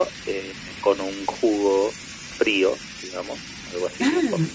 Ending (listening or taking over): listening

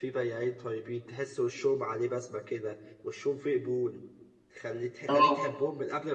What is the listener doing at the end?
listening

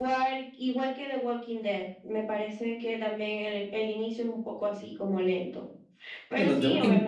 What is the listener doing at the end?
taking over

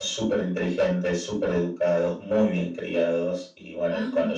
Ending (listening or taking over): listening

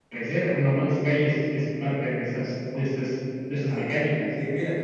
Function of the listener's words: taking over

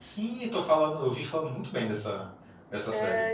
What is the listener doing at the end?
taking over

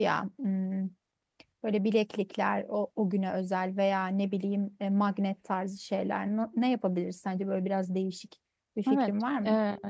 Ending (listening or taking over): taking over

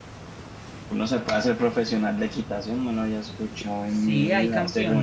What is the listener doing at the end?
taking over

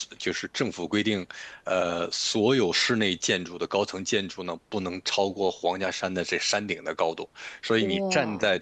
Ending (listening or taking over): listening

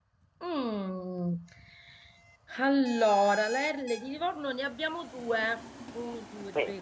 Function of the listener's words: listening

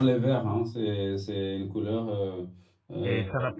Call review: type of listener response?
taking over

